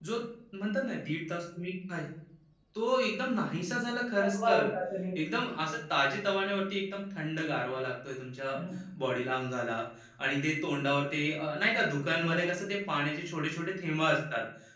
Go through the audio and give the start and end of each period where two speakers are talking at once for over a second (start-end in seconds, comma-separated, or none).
none